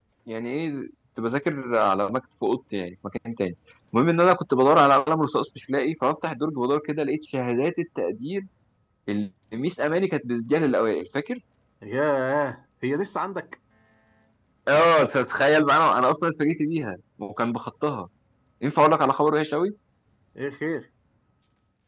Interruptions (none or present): none